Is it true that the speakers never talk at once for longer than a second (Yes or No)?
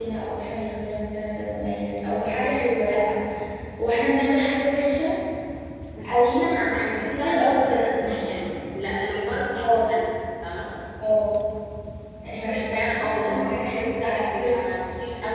No